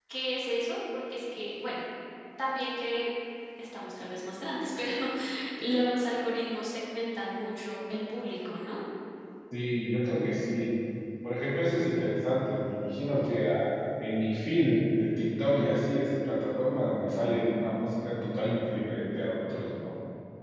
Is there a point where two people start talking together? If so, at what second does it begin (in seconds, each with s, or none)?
none